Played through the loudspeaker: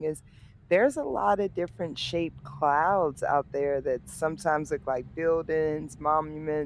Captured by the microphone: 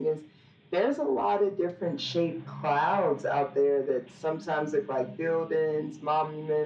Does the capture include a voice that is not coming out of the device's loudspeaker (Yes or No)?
No